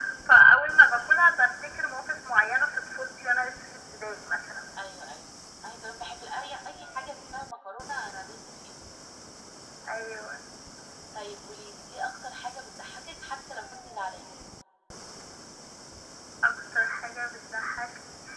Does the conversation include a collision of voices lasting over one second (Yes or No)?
No